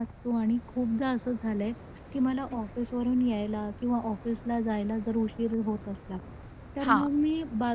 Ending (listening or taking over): listening